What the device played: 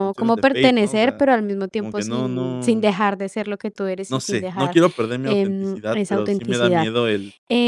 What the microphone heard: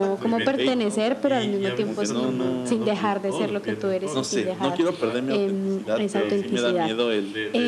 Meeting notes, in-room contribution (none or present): present